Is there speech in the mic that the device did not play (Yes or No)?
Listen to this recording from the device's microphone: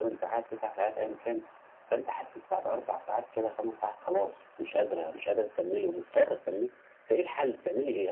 No